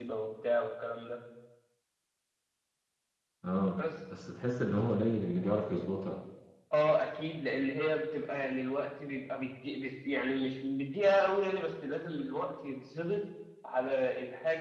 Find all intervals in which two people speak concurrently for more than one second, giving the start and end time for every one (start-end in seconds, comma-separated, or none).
none